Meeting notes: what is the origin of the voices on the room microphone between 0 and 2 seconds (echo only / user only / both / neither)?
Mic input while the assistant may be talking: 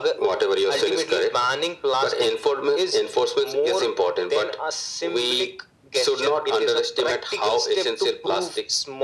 echo only